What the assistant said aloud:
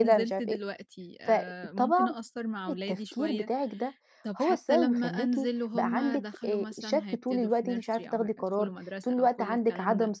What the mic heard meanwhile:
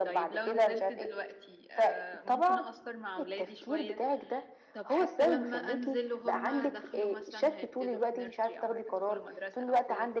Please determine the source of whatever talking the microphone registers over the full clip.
echo only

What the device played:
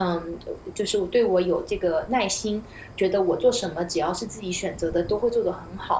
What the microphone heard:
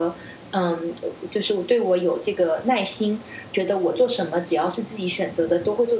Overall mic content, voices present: echo only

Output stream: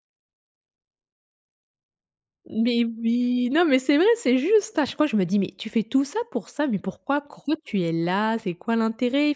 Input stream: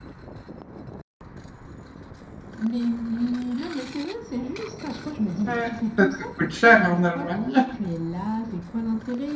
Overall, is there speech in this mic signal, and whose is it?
both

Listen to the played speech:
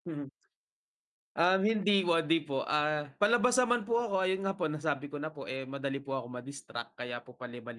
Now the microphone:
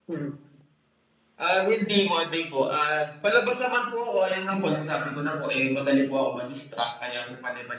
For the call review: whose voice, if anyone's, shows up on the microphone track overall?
echo only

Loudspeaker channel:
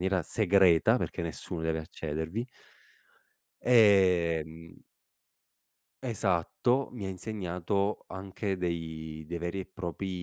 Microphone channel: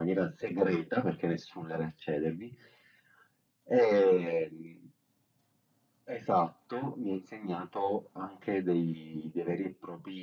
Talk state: echo only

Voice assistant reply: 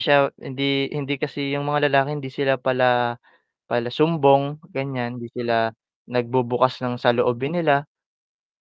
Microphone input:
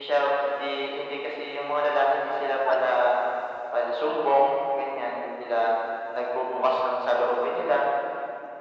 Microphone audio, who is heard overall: both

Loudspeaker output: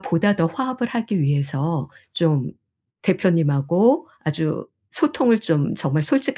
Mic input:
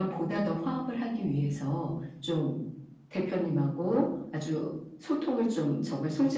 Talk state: echo only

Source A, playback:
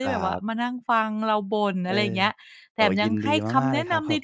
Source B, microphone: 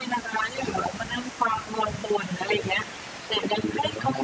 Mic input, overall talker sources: echo only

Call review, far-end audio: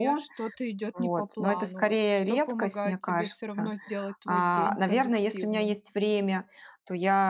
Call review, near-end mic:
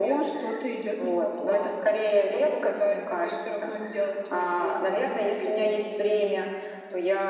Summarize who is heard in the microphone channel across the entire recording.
echo only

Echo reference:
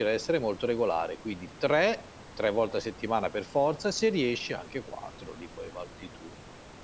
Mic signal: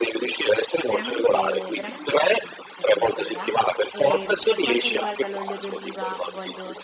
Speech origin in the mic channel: both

